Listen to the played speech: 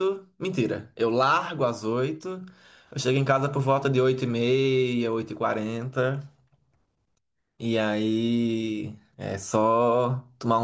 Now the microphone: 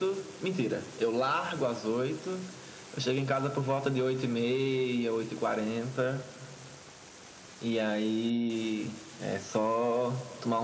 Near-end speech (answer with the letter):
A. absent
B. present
A